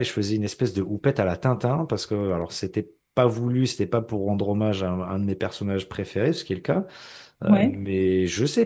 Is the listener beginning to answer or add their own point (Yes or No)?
No